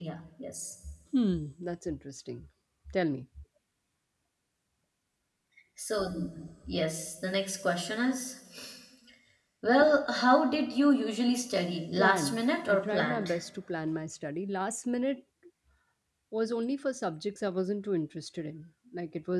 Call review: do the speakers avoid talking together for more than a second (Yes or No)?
No